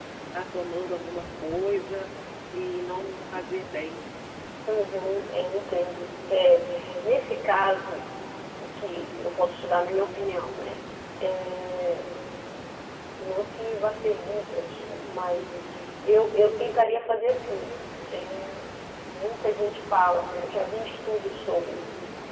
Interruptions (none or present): none